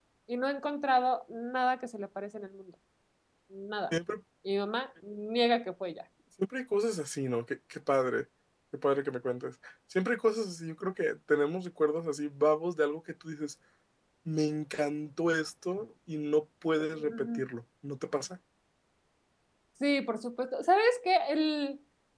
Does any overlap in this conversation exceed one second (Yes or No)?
No